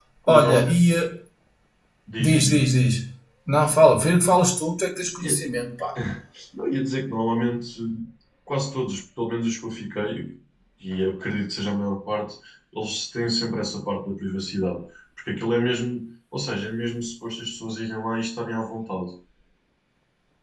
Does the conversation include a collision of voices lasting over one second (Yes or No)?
No